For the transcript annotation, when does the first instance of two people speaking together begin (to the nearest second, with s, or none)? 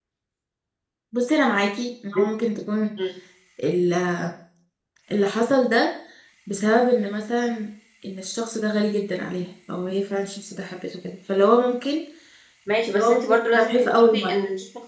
13 s